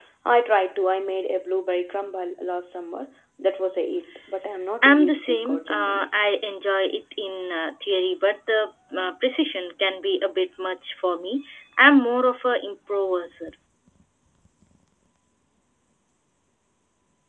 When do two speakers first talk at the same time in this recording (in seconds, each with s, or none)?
4.8 s